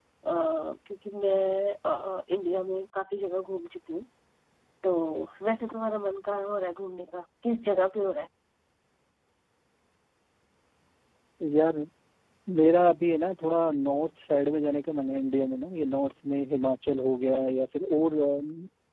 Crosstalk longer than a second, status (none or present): none